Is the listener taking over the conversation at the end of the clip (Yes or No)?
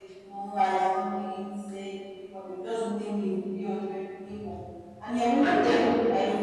No